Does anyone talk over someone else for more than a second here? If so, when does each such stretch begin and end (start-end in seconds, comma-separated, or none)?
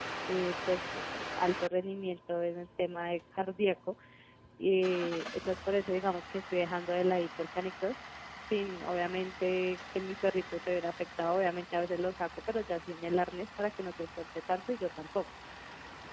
none